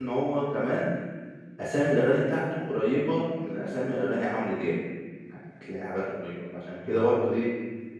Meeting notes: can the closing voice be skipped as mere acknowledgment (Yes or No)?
Yes